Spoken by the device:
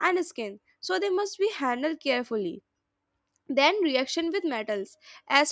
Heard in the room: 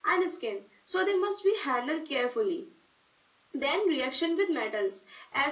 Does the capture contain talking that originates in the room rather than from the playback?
No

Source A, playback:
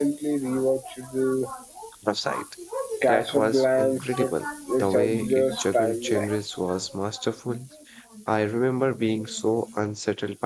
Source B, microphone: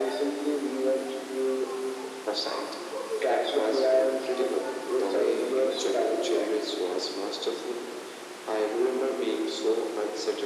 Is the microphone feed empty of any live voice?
Yes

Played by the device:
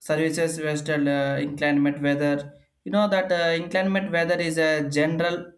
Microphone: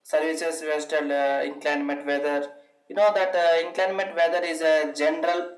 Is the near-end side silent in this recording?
Yes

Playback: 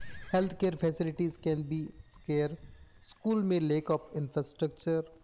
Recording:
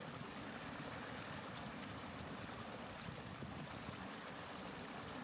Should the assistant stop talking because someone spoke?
No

